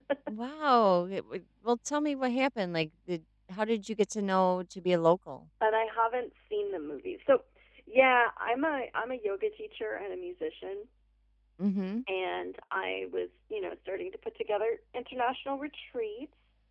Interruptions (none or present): none